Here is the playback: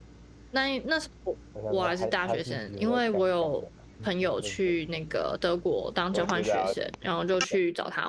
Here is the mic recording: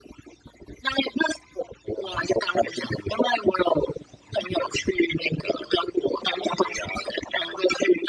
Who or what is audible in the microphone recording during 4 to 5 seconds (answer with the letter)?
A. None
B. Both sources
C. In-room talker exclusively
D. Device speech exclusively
D